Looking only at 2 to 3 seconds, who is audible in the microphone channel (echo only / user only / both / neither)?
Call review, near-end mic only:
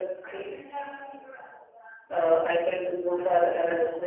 echo only